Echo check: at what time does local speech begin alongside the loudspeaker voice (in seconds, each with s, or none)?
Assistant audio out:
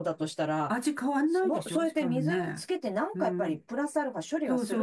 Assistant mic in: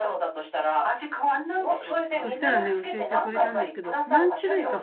2.2 s